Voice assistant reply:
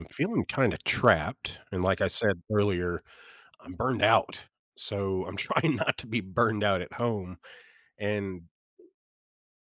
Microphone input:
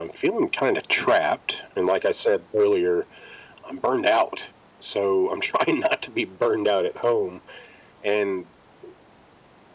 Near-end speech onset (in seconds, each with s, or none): none